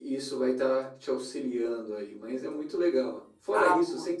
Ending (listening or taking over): listening